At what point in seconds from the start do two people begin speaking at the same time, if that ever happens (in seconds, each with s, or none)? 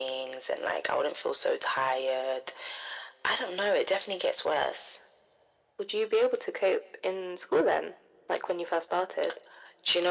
none